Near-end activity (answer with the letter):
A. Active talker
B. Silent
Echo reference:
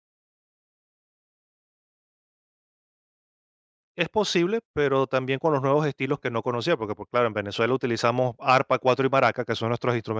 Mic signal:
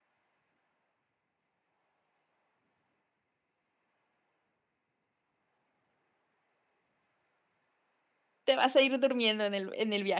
A